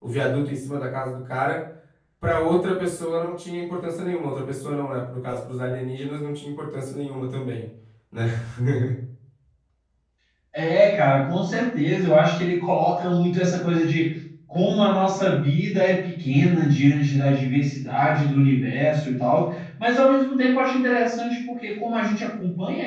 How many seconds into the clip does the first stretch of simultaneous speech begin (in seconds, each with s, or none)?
none